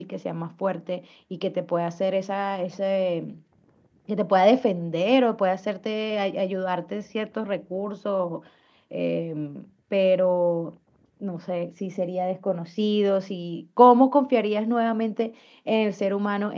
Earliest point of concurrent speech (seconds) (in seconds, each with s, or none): none